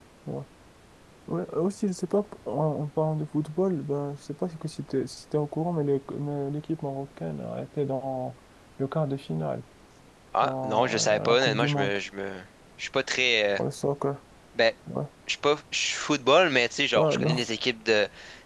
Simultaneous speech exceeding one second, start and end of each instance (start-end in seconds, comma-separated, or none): 10.4-12.0